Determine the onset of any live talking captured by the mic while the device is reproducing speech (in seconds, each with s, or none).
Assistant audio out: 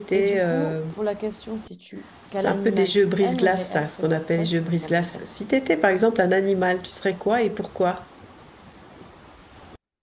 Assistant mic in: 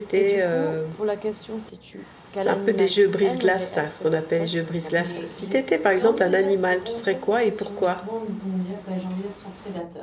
5.0 s